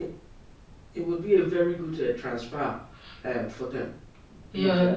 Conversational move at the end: taking over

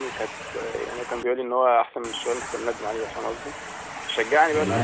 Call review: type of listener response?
listening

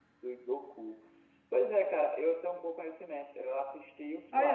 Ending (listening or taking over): taking over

